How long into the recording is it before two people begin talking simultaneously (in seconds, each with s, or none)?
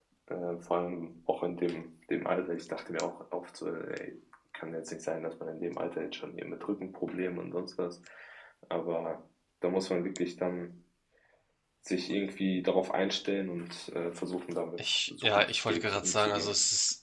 14.8 s